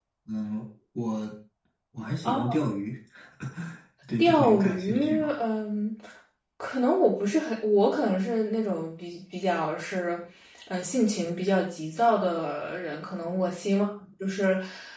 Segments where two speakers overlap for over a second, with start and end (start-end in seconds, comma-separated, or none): 4.2-5.4